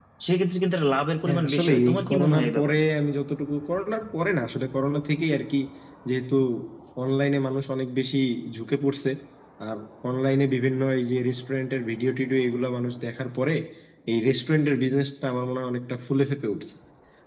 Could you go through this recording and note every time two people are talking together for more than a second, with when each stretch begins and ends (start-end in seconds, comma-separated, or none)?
1.2-2.8